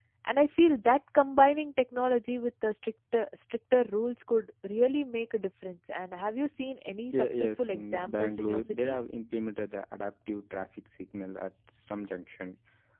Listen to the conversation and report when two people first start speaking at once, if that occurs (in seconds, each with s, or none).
7.1 s